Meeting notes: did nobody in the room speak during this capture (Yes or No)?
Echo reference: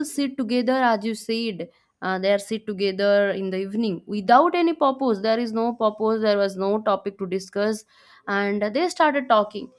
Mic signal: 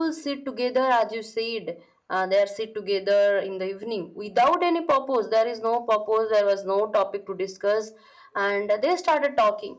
Yes